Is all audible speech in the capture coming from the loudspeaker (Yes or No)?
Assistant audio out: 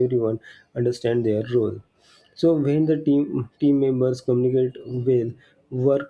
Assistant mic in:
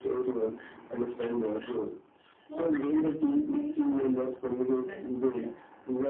No